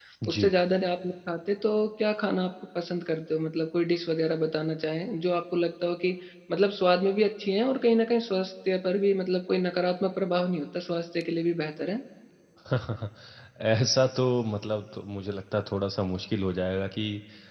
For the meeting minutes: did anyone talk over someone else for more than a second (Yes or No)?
No